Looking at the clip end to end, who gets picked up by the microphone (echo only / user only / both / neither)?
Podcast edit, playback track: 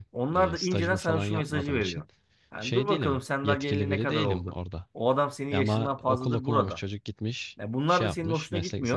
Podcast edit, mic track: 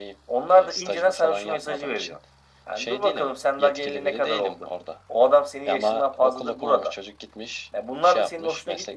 echo only